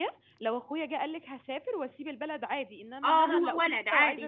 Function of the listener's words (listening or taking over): taking over